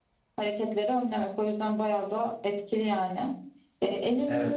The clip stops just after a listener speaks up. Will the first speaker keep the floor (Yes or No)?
Yes